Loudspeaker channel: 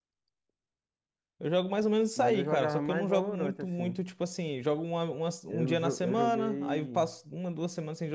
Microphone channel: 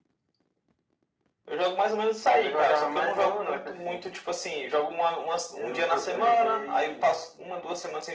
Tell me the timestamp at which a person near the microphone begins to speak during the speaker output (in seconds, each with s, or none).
none